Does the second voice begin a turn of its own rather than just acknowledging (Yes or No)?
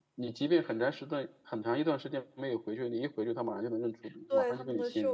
Yes